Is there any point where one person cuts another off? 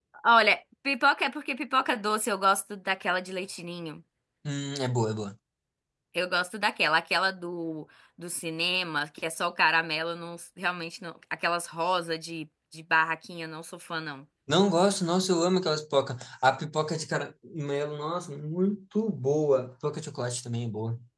No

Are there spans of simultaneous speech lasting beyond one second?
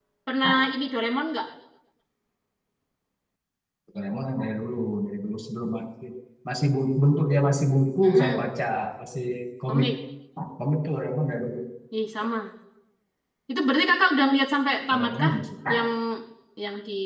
No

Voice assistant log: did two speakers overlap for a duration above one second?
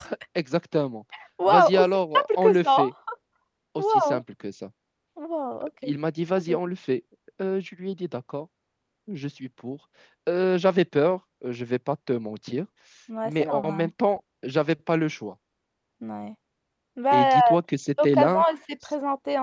Yes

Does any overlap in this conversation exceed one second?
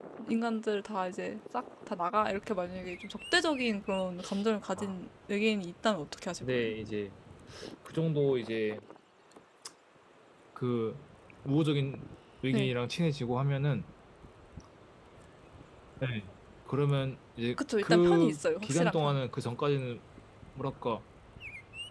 Yes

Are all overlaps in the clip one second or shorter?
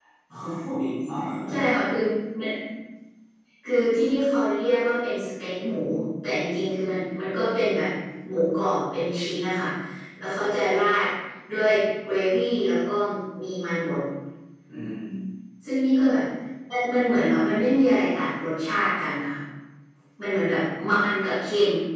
Yes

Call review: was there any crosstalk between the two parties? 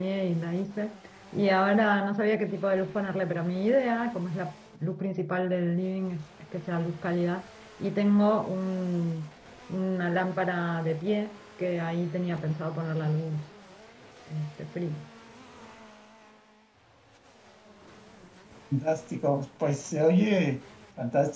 No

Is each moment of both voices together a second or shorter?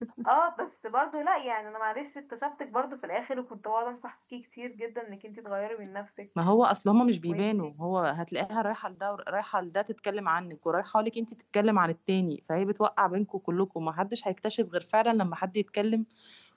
Yes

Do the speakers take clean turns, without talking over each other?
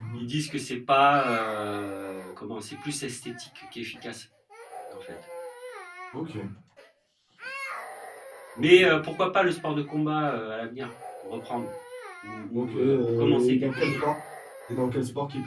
No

